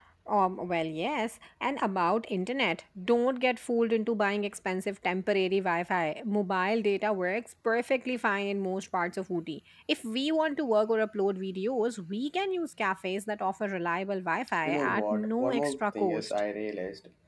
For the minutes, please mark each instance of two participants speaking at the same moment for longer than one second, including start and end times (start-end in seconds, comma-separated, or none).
14.6-16.3